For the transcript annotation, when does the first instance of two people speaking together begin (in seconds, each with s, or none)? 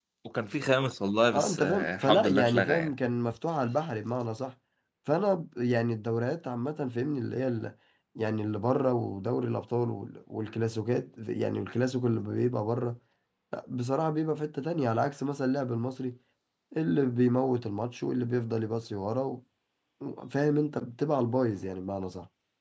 1.3 s